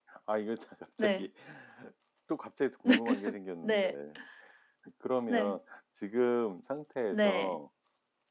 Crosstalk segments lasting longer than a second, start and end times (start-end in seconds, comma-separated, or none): none